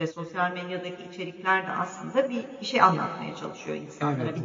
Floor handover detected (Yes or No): No